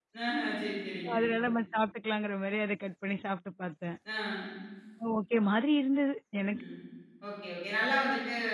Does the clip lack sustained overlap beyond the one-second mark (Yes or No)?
Yes